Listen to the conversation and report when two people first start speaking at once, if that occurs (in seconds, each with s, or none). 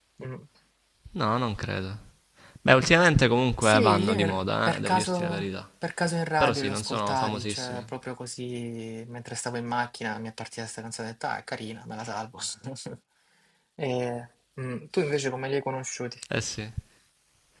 3.6 s